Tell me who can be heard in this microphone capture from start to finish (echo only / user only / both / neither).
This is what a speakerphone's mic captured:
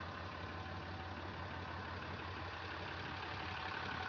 neither